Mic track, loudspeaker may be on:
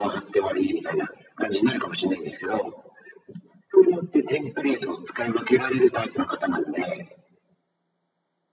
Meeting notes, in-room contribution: none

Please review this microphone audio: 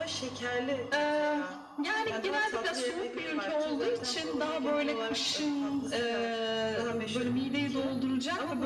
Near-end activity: none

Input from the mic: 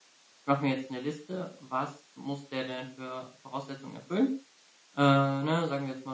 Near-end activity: present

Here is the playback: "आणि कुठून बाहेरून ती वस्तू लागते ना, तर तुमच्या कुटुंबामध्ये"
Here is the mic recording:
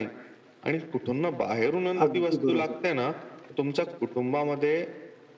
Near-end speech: present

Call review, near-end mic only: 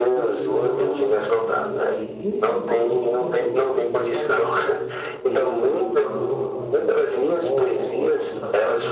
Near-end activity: present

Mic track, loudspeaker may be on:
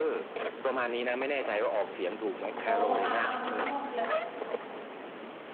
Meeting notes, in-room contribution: present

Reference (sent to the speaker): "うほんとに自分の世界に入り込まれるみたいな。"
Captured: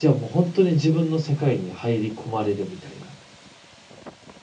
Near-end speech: none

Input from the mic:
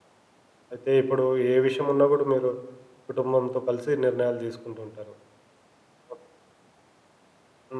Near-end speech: present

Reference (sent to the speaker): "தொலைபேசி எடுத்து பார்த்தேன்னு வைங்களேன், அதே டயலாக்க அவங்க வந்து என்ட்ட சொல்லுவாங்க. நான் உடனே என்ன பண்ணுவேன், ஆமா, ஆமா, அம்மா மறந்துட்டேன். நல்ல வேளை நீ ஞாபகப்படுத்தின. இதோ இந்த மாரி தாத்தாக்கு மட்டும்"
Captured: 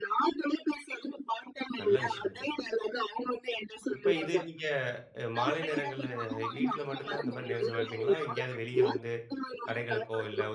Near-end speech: present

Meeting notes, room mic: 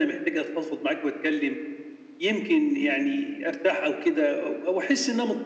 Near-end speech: none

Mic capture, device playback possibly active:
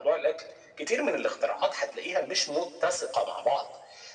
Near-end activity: none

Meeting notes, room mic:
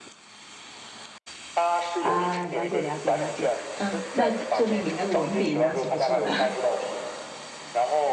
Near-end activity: present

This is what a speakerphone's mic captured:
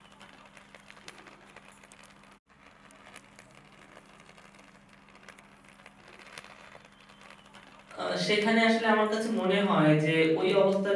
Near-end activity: present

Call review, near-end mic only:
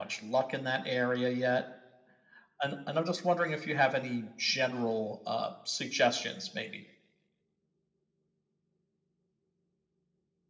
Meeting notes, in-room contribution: none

